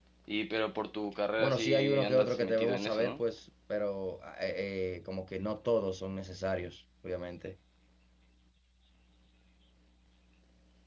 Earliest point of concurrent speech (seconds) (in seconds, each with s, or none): 1.4 s